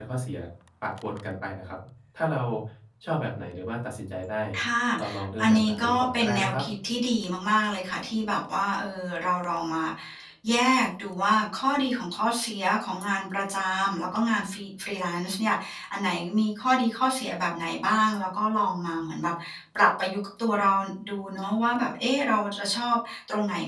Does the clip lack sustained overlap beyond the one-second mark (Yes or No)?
No